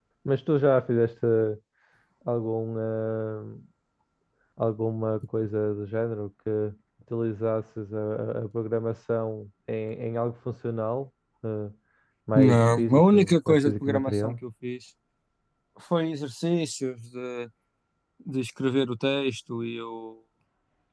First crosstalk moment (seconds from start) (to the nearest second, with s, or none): 12 s